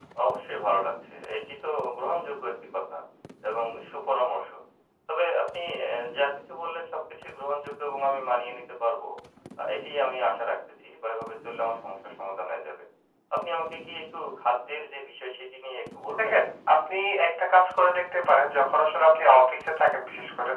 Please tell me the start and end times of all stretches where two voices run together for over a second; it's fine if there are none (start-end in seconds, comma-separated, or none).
none